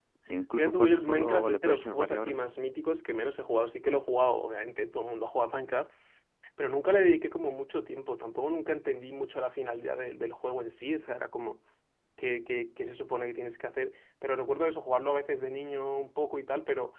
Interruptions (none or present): present